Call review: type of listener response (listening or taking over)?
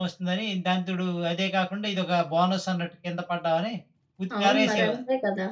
taking over